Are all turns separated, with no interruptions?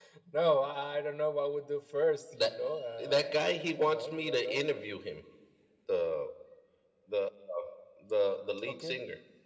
No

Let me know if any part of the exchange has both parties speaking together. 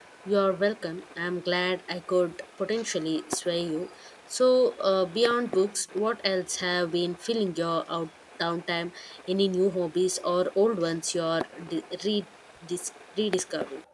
No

